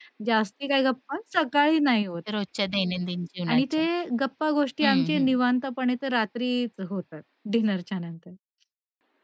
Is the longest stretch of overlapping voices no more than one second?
Yes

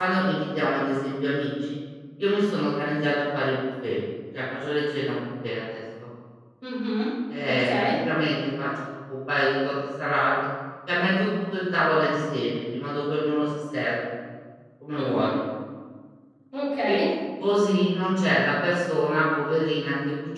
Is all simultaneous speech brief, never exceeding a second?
Yes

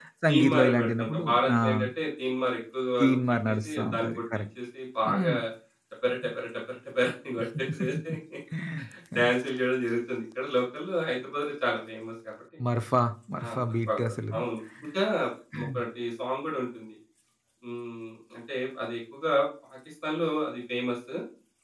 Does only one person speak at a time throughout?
No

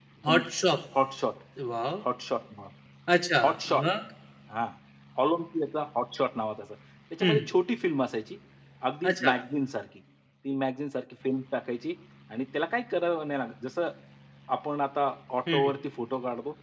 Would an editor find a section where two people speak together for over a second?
No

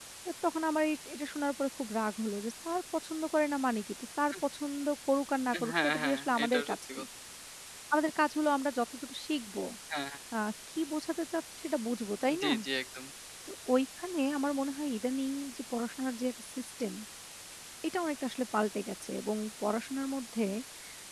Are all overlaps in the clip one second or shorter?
No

